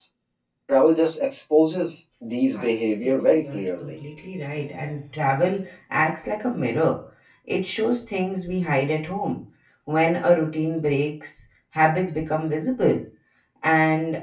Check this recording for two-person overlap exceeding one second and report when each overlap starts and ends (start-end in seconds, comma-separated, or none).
2.6-3.9